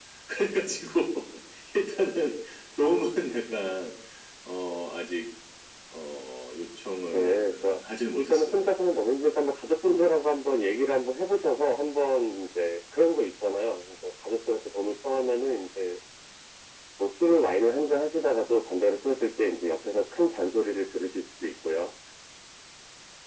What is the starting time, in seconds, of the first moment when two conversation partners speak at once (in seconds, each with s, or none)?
7.1 s